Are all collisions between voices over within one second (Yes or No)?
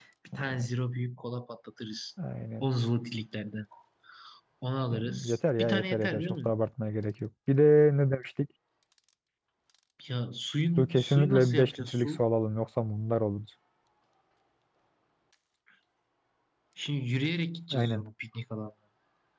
No